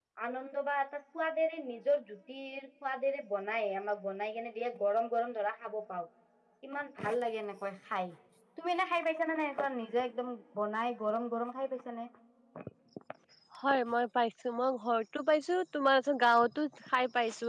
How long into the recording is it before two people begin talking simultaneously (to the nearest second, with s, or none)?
none